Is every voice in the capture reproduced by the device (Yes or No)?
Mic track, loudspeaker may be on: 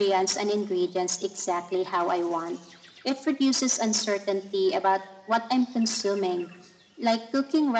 Yes